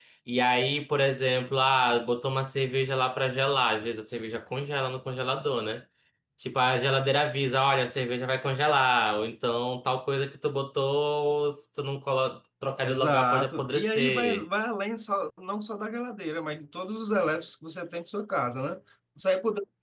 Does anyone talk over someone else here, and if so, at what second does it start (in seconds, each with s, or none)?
12.8 s